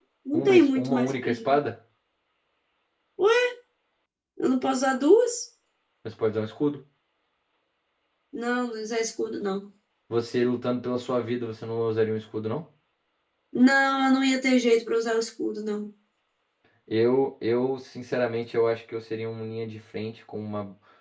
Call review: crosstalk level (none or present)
present